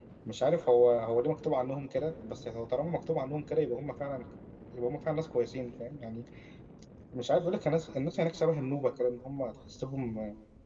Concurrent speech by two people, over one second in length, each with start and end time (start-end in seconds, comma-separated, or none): none